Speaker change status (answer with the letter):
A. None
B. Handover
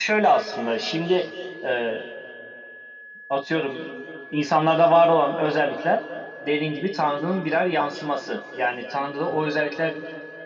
A